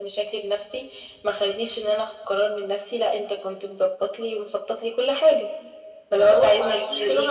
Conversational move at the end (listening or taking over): taking over